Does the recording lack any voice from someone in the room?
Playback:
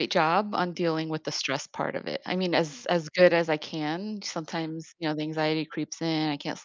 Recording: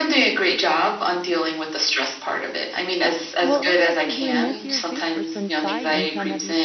No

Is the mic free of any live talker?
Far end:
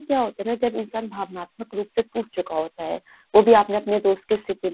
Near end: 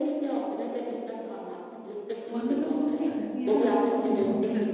No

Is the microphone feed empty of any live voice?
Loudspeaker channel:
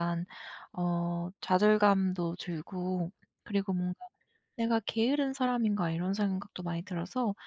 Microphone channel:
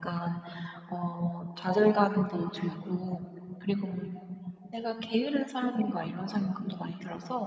Yes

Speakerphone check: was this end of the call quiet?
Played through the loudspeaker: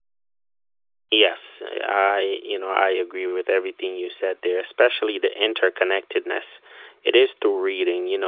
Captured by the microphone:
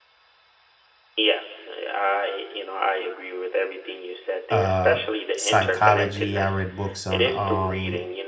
No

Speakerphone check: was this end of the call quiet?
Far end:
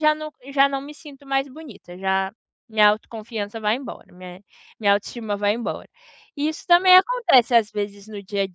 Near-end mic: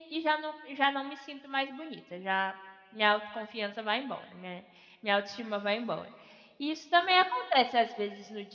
Yes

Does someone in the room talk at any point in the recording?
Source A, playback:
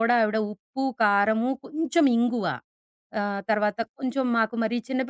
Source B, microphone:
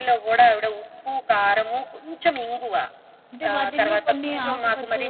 Yes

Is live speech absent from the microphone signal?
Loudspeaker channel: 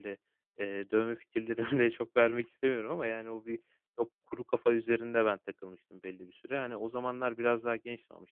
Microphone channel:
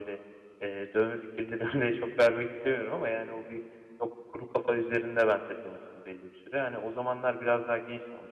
Yes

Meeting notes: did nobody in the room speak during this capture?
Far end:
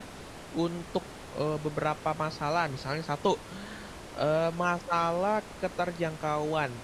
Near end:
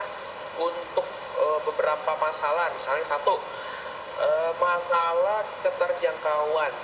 Yes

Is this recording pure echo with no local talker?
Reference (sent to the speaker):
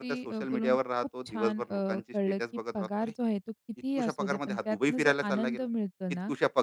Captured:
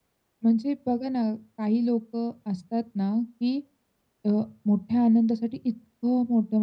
No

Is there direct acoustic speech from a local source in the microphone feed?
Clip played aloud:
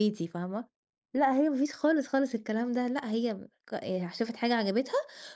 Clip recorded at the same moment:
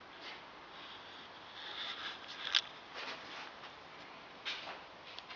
No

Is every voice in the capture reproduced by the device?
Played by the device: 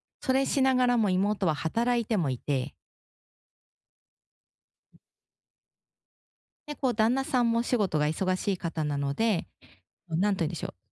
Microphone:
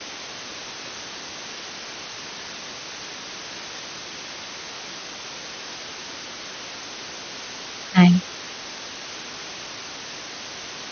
No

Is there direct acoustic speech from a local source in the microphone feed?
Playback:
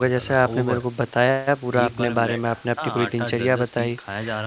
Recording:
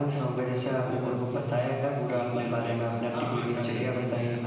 Yes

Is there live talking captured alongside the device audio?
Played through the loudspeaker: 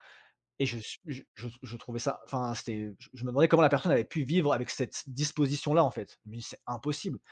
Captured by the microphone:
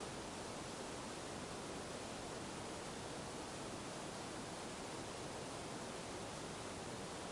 No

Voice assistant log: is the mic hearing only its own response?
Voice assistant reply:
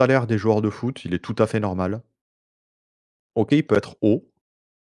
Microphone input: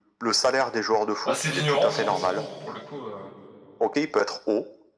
No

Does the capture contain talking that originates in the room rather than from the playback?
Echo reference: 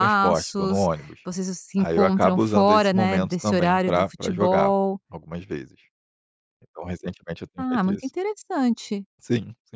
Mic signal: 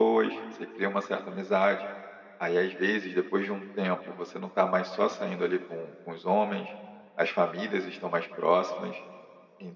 Yes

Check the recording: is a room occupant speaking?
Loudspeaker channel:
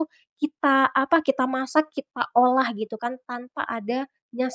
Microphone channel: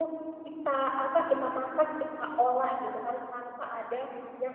No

